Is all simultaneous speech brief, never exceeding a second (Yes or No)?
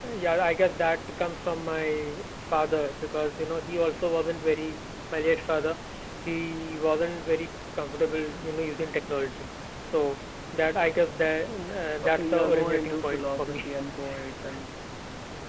No